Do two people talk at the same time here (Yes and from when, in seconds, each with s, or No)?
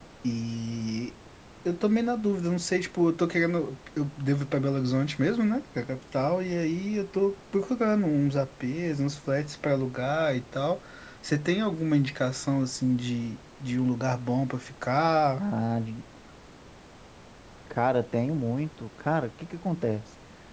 No